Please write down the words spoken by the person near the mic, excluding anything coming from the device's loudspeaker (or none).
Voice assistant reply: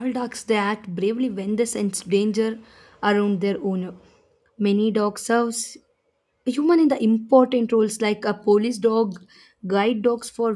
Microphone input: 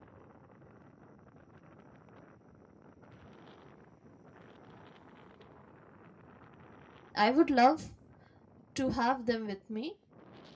i would love to have them with me